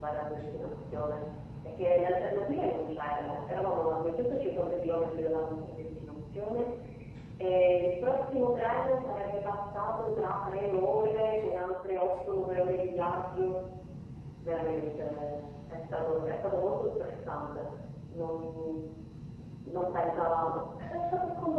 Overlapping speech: No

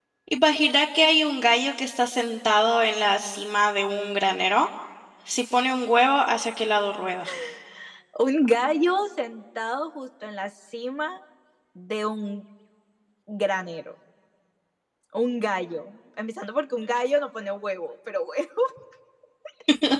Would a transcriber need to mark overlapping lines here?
No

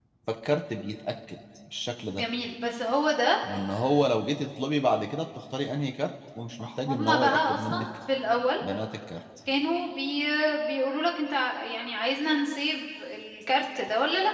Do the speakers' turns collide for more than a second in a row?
Yes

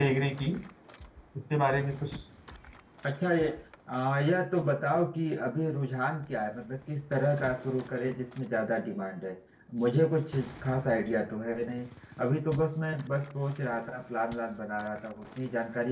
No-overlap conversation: Yes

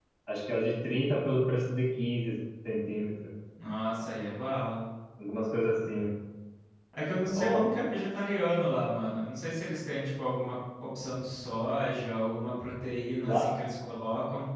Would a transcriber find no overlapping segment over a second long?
Yes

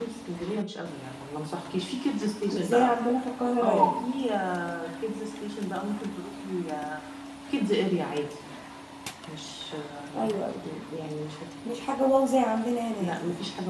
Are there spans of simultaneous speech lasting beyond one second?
No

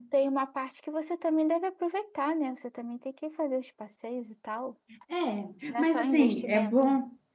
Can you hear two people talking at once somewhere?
Yes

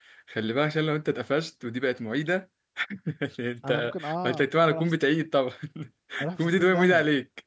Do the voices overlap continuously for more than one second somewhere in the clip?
Yes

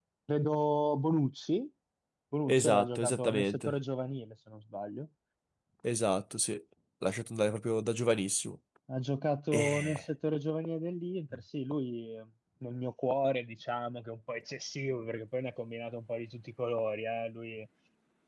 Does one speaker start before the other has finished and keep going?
Yes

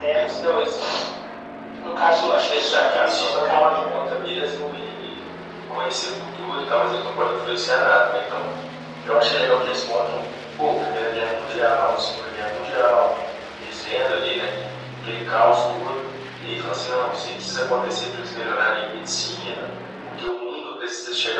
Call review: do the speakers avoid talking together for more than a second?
No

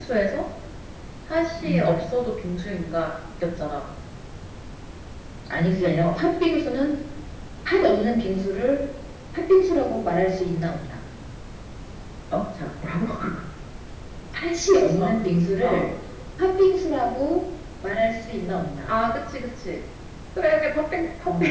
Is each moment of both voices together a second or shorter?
Yes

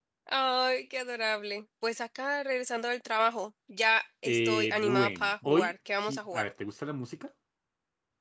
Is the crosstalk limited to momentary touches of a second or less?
No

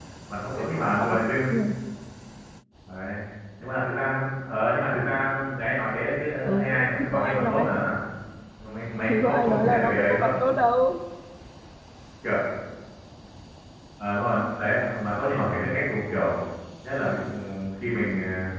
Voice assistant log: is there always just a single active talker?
No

